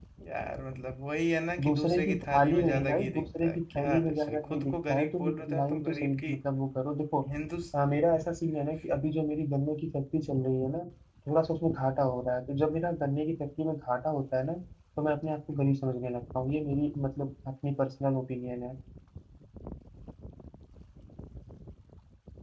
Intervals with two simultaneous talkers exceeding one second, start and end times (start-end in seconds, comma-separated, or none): 1.6-6.3